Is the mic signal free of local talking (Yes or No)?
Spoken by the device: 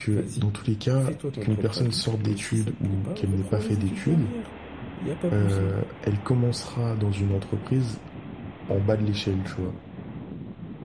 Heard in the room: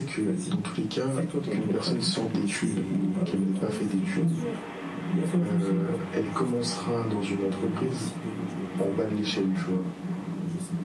No